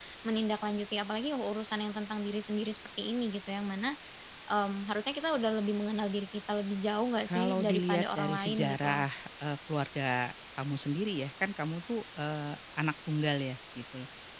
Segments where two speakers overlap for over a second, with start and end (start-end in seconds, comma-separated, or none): 7.2-9.0